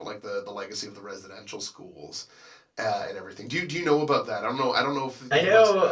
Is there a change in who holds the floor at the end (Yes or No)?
Yes